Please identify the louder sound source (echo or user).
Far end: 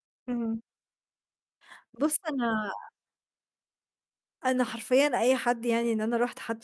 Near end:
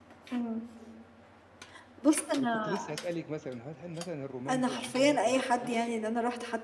echo